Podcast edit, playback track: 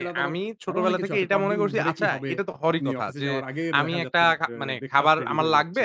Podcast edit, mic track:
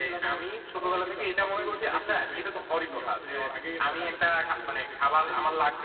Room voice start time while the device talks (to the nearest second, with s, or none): none